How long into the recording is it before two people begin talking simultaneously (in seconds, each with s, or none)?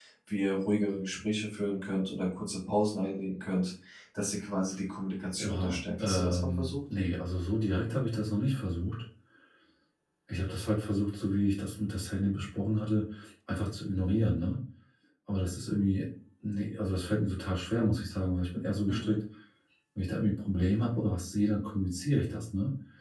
5.4 s